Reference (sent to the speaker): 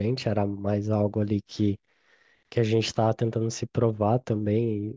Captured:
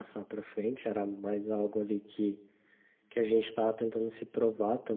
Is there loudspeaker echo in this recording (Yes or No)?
Yes